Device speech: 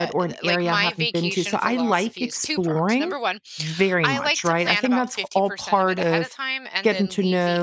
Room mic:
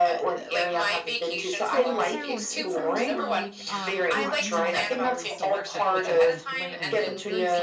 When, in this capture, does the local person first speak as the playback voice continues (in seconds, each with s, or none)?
1.6 s